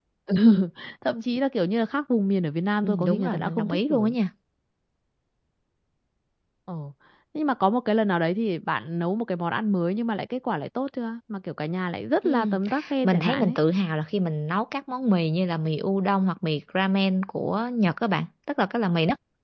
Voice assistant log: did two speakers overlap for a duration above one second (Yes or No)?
Yes